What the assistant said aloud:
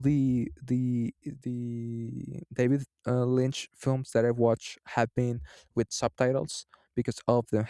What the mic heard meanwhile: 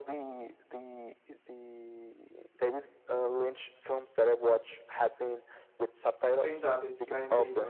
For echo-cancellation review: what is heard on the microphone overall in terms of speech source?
both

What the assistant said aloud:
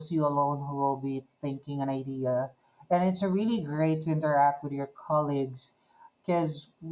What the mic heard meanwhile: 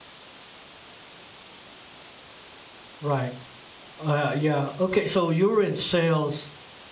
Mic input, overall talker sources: user only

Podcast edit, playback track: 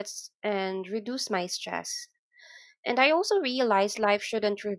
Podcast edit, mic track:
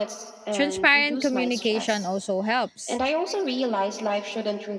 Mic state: both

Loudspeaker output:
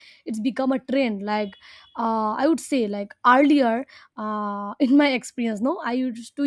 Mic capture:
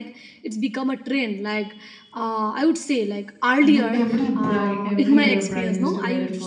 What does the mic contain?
both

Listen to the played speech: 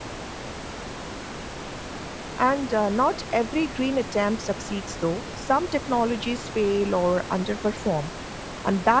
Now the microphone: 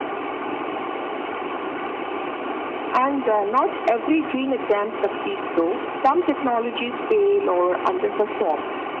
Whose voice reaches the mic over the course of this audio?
echo only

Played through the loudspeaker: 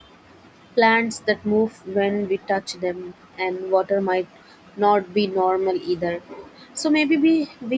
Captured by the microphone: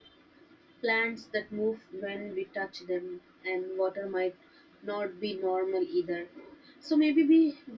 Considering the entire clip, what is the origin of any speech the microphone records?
echo only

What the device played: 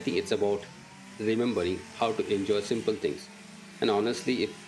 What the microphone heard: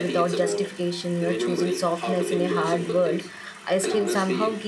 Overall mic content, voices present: both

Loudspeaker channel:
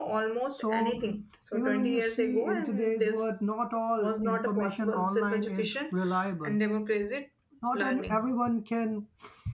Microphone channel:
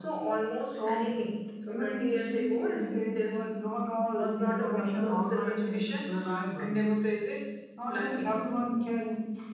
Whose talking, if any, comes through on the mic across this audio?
echo only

